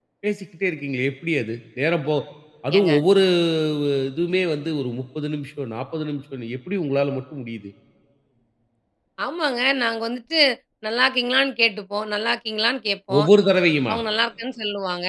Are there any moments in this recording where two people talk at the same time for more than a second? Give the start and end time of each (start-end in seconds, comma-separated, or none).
none